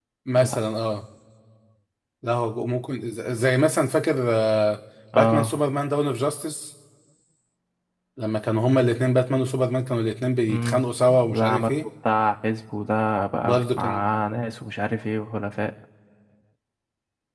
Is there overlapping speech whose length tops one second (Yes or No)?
Yes